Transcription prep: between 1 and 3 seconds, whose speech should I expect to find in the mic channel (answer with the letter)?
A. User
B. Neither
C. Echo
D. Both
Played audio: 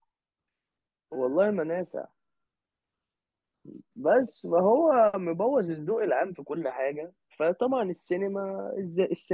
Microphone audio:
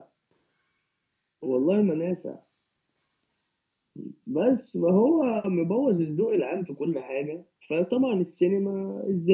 C